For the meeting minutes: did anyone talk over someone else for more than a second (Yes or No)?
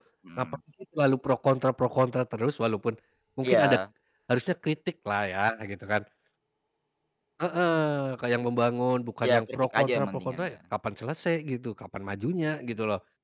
Yes